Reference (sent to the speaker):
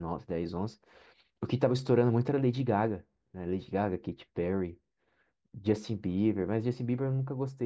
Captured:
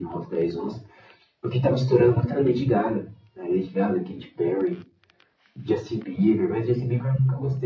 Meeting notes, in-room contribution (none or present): none